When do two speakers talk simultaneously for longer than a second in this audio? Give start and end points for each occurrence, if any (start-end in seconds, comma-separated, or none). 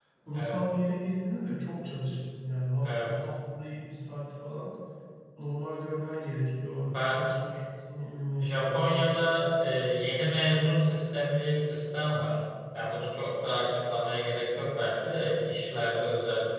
8.4-9.8